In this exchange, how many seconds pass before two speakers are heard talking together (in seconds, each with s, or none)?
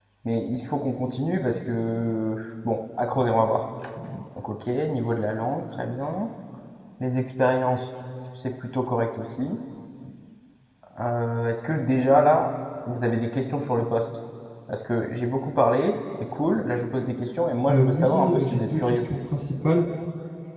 17.7 s